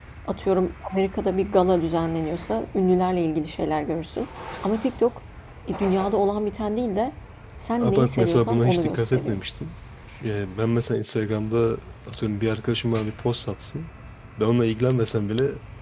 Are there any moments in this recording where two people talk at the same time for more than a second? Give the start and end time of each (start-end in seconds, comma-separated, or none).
7.8-9.4